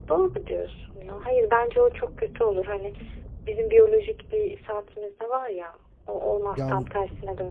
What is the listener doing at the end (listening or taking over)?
listening